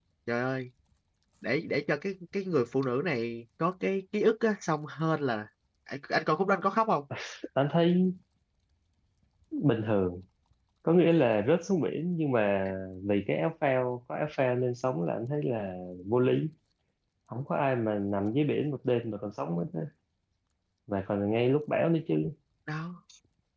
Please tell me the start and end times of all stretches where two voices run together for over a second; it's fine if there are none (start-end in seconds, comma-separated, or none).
none